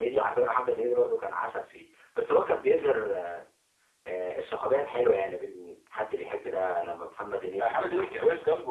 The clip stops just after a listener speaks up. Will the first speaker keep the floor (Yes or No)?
No